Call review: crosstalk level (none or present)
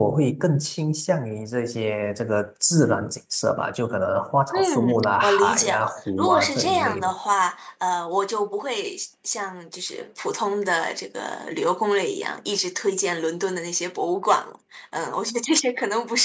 present